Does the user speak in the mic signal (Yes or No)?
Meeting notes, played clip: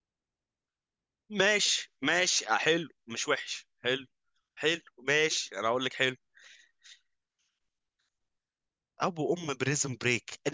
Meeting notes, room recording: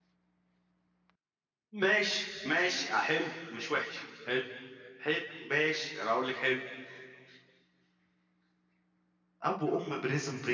No